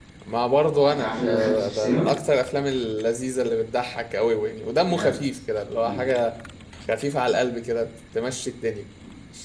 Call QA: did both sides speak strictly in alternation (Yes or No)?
No